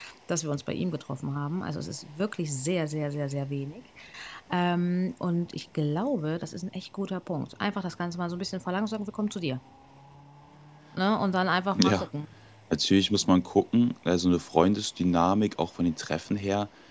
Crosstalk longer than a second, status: none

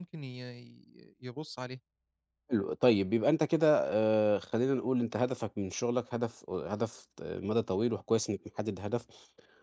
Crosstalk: none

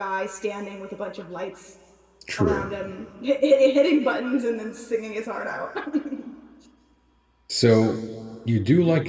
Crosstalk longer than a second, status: none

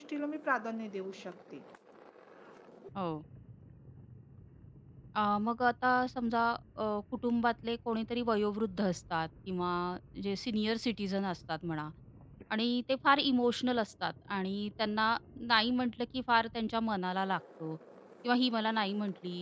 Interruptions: none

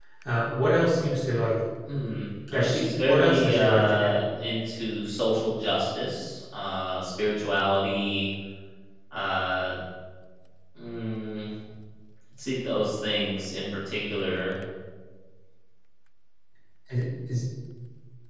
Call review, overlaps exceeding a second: present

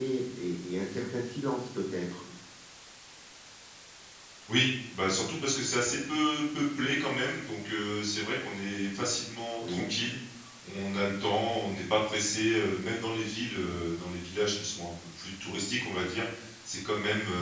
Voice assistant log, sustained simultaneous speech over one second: none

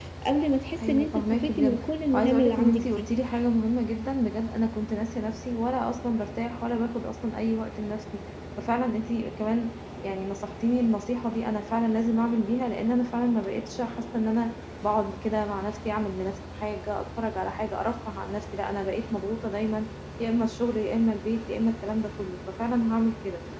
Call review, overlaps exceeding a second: present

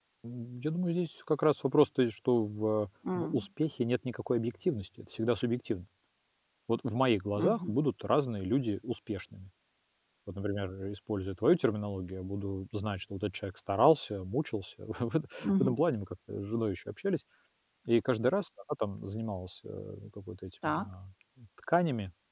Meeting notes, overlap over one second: none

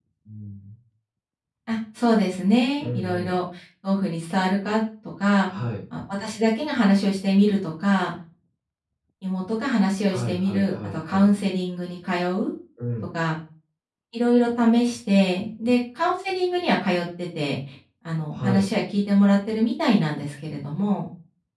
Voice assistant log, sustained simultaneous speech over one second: present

